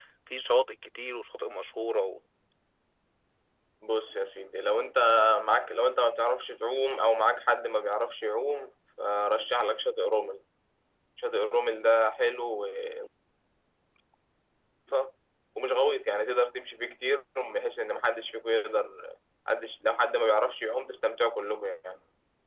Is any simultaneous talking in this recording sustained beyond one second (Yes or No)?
No